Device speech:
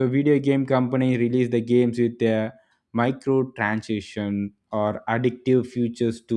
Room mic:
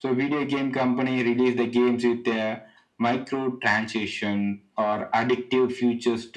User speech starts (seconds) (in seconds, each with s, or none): none